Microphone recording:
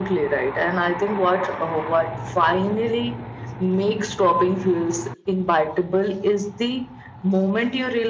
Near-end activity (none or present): none